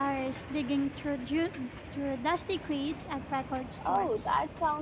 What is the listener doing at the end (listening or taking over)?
taking over